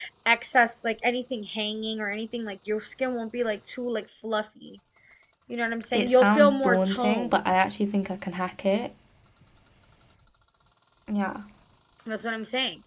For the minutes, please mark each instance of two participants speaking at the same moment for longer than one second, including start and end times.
5.9-7.3

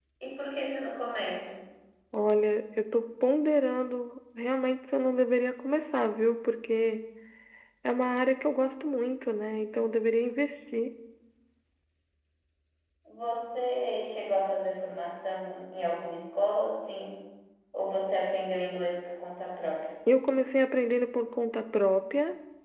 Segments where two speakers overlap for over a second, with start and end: none

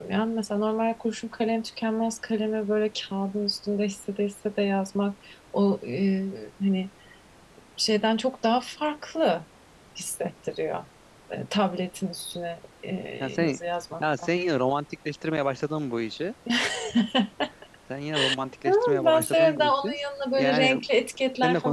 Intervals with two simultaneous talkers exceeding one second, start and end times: 18.7-19.9

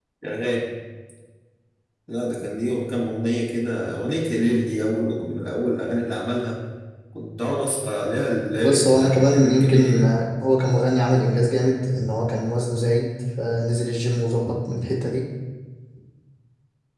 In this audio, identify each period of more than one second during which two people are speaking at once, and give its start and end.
8.6-10.1

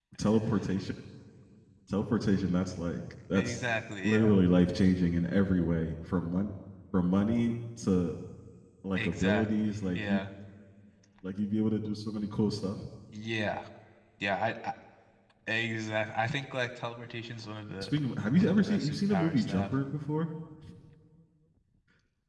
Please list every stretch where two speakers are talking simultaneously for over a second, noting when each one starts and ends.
9.0-10.2, 18.4-19.7

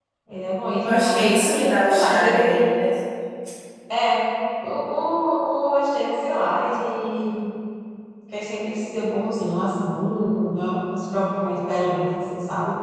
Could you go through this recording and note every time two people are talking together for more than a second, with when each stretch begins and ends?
0.8-2.5

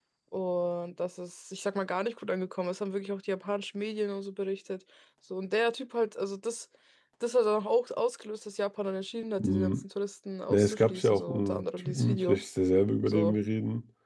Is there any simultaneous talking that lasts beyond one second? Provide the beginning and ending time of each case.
10.5-12.4

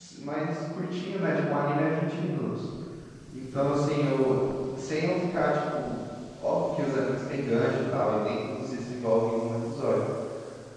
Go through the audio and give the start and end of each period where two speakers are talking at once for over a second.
none

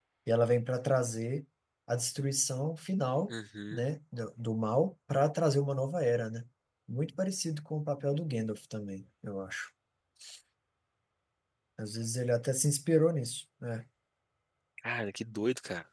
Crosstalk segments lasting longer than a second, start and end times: none

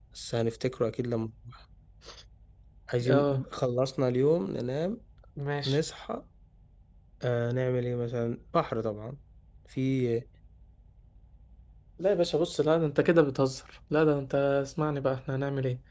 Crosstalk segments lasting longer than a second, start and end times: none

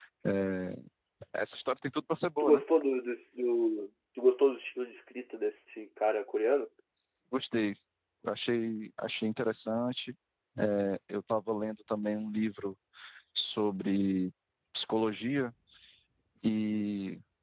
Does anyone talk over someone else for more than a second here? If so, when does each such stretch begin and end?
none

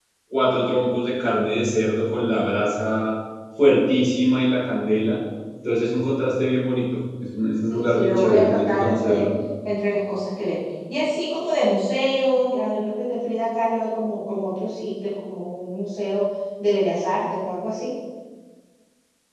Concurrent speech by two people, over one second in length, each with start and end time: 7.7-9.2

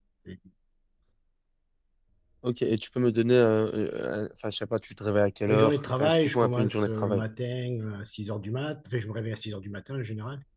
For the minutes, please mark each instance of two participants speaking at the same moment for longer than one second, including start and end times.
5.5-7.2

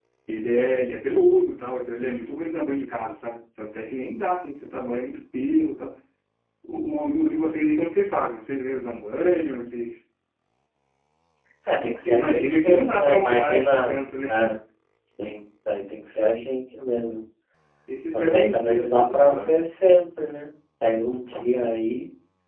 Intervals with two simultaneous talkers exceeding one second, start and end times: 12.1-14.3, 18.1-19.6

